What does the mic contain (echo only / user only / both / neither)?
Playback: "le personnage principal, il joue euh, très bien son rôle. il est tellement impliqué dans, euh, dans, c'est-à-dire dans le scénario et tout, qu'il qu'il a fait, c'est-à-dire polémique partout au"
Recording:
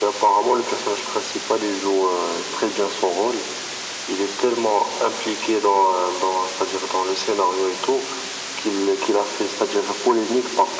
echo only